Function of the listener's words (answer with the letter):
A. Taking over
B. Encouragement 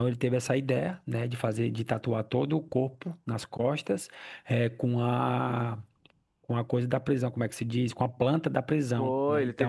A